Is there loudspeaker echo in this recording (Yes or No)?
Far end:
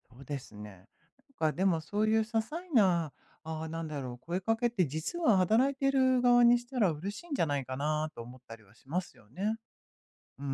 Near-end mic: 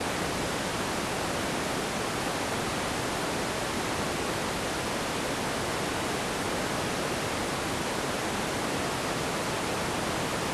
No